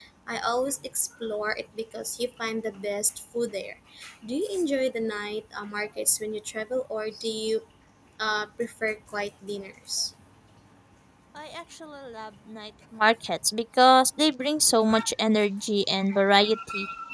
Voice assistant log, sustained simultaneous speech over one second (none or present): none